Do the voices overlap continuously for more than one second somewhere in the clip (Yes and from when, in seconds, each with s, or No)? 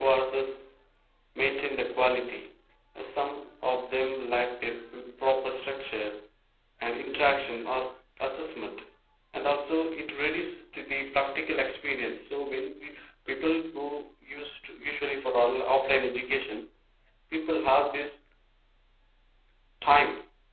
No